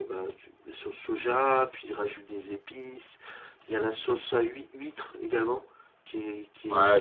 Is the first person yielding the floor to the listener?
Yes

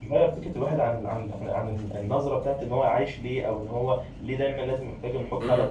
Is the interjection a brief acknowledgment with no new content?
No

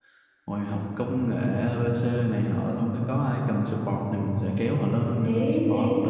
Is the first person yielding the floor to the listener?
Yes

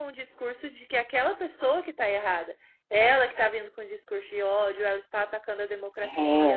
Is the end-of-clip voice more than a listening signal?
No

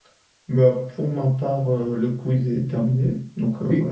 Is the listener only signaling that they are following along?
No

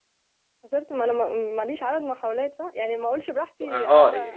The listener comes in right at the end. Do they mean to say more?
Yes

